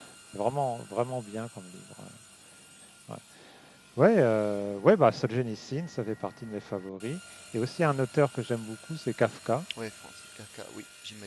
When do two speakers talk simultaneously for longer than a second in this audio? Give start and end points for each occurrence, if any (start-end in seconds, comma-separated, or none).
none